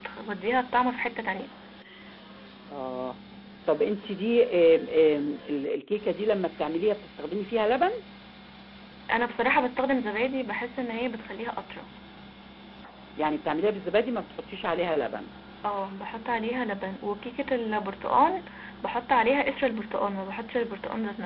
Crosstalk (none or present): none